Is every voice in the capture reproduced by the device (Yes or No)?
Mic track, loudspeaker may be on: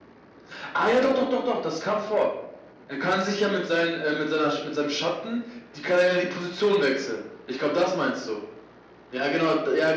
Yes